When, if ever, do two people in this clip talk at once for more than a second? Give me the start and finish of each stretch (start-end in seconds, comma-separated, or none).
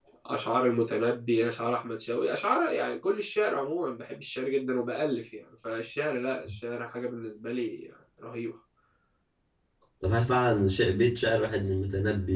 none